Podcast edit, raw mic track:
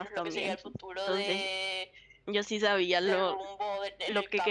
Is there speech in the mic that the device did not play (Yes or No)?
Yes